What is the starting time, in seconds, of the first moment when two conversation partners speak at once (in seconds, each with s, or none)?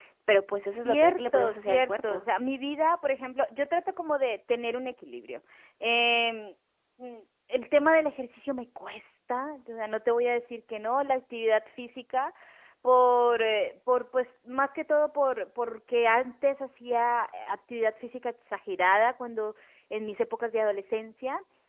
0.8 s